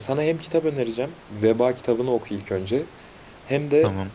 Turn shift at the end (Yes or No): No